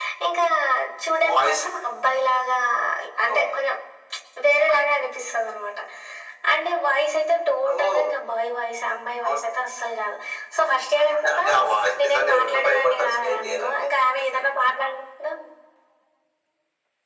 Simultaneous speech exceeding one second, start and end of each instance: 12.0-13.7

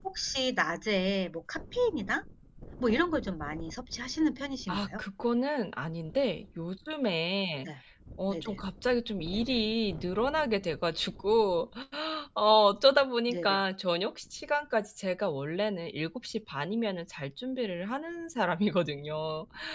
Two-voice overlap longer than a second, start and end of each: none

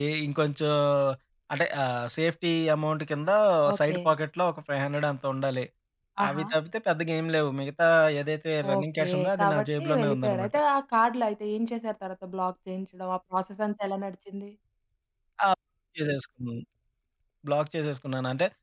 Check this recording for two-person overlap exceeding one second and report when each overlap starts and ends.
8.8-10.5

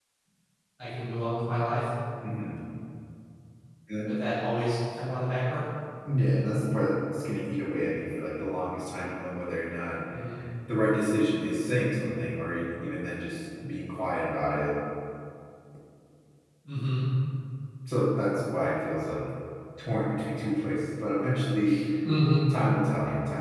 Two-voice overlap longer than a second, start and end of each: none

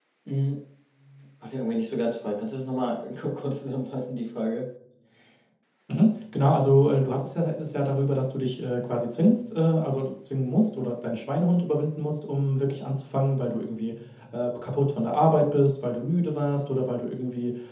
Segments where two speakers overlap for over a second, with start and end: none

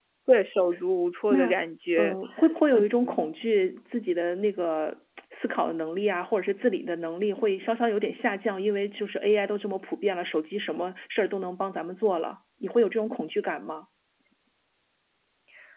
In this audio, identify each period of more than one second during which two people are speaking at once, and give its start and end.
none

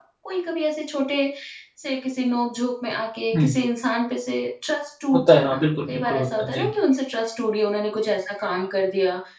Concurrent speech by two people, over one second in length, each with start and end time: 5.1-6.7

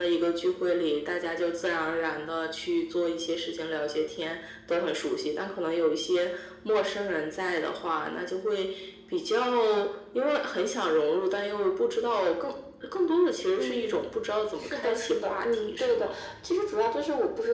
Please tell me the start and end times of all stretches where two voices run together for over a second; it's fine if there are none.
14.5-16.1

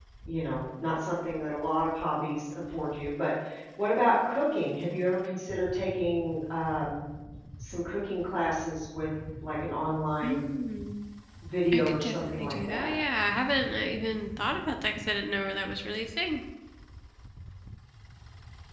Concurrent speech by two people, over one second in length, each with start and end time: 11.7-12.9

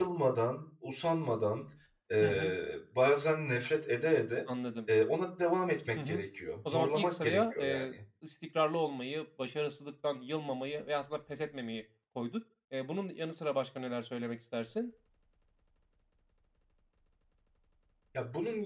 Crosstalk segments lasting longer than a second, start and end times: 6.7-7.9

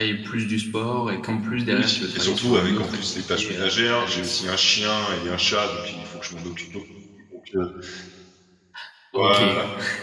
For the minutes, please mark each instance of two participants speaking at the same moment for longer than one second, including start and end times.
1.7-4.3

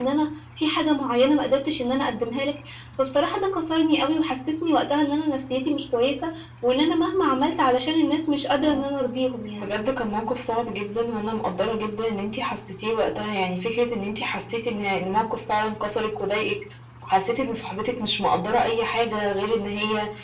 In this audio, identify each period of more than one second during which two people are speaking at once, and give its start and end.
none

